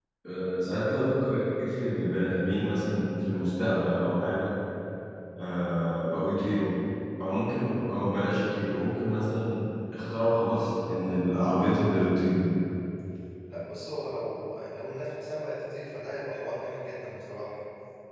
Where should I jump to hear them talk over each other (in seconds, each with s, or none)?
none